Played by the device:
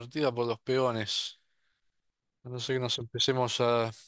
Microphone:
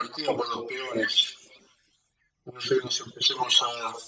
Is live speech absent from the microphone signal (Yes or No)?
Yes